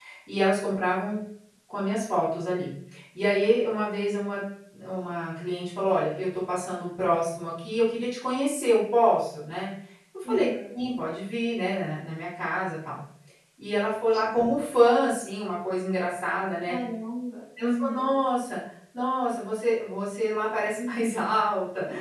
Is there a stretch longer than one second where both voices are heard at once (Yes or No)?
No